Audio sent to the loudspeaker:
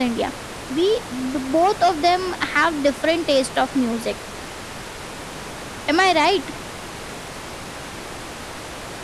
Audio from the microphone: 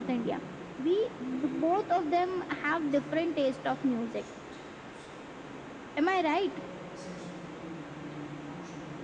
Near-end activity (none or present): present